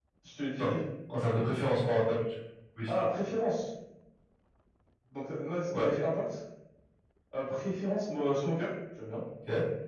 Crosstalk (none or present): none